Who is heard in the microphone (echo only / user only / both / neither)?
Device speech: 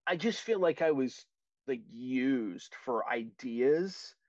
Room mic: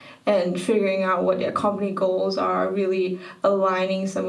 user only